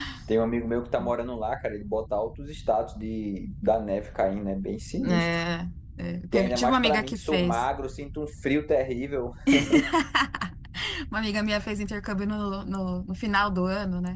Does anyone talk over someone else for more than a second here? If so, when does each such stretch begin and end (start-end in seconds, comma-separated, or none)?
6.3-7.6